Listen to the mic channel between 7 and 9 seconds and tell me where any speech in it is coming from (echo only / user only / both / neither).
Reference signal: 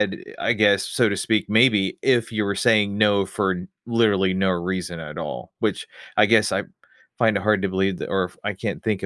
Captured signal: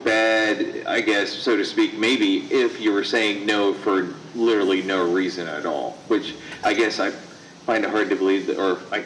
echo only